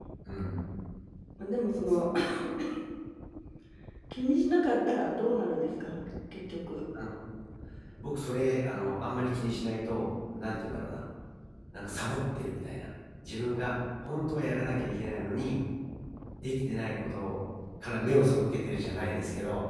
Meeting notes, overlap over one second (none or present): none